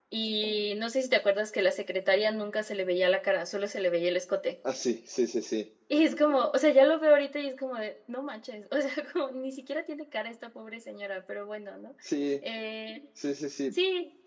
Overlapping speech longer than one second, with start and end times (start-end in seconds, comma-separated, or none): none